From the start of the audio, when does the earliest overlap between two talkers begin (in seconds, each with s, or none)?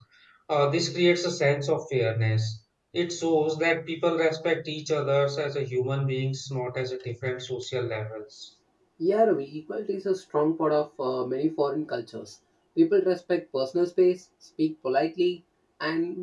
none